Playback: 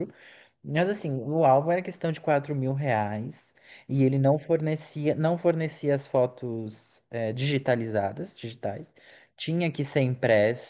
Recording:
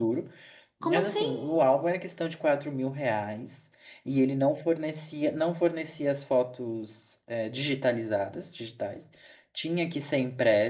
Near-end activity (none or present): present